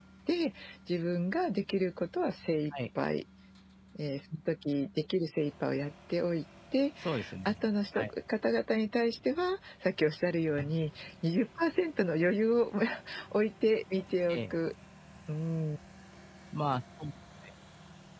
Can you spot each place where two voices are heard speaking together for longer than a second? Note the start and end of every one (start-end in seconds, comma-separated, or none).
none